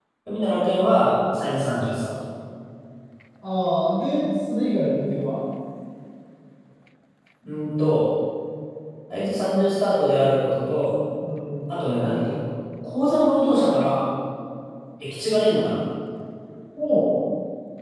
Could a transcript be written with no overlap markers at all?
Yes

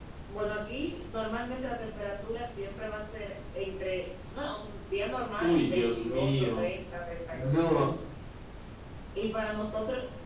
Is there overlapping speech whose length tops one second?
Yes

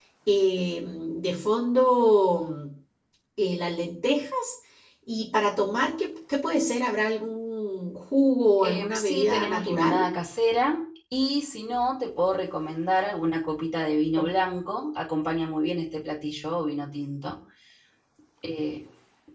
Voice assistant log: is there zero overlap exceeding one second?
No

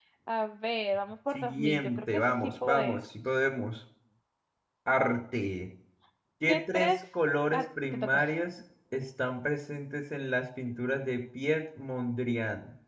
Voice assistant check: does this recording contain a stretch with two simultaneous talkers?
Yes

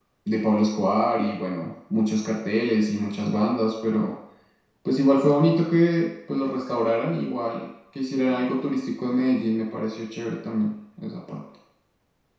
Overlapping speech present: No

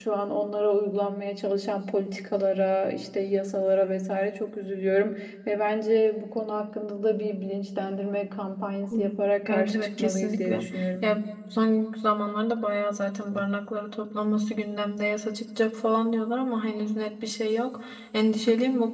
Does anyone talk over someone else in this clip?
Yes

